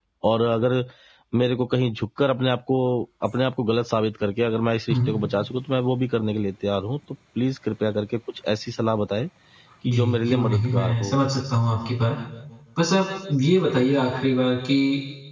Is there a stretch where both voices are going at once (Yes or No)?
Yes